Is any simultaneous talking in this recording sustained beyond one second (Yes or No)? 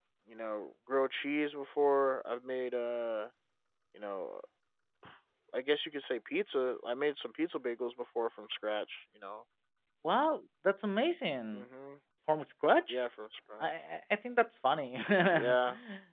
No